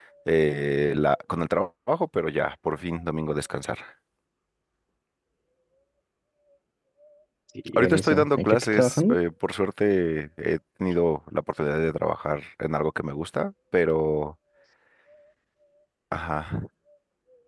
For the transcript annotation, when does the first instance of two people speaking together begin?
7.8 s

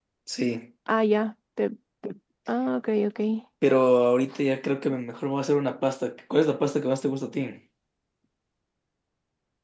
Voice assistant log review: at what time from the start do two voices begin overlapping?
none

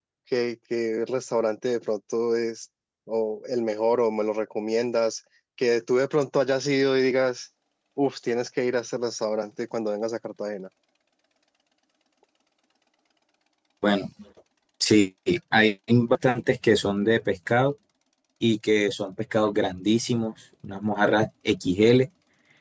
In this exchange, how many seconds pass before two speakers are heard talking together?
none

